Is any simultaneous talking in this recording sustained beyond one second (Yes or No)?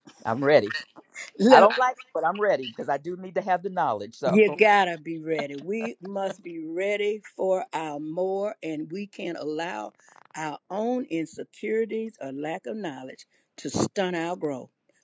No